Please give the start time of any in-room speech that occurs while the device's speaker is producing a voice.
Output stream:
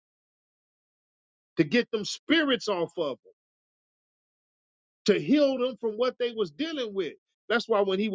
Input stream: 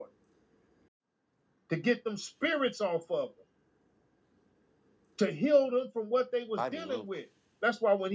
7 s

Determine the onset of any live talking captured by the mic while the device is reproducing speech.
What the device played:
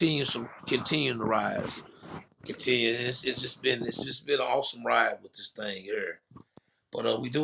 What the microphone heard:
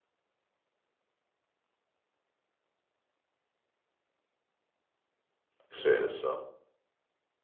6 s

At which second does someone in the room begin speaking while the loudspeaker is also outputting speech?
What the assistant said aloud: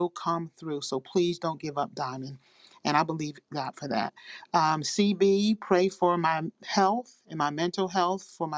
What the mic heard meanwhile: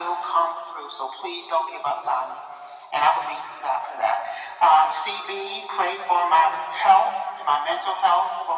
none

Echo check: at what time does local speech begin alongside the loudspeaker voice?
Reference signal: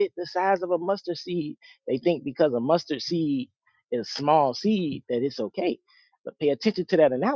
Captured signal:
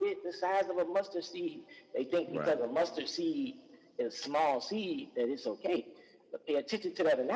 2 s

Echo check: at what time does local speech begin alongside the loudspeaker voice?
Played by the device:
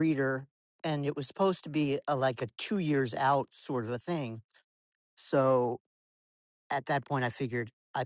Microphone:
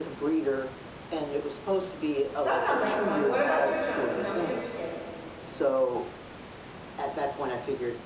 2 s

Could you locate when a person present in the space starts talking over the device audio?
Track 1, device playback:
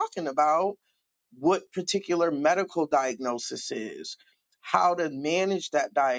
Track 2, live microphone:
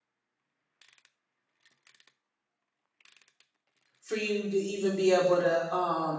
4 s

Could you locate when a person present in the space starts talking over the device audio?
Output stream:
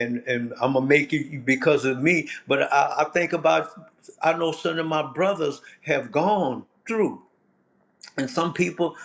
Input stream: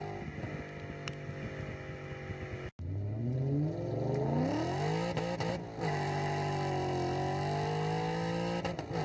none

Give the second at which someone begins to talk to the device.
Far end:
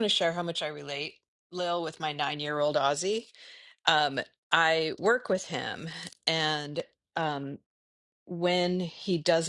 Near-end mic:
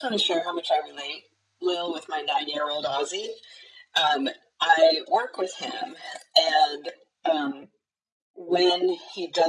none

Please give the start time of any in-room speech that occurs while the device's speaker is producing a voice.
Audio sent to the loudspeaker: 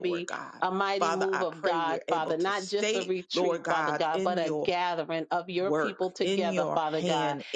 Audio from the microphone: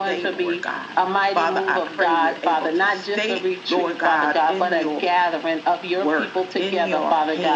none

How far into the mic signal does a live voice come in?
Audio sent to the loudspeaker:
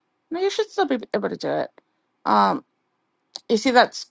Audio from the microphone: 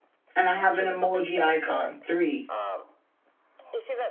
0 s

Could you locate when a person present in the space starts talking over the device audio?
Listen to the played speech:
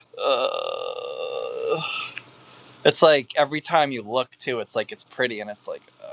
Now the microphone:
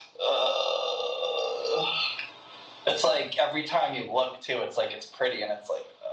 none

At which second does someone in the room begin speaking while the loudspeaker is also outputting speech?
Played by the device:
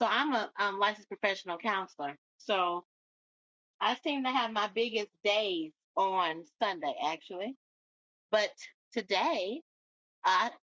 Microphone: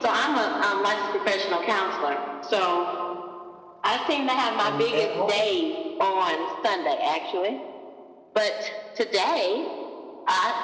5 s

